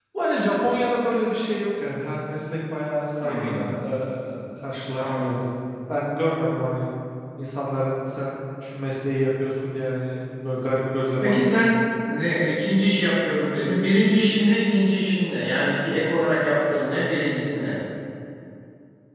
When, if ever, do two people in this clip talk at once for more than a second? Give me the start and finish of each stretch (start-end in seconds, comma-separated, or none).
none